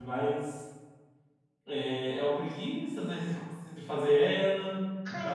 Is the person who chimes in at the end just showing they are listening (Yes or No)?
No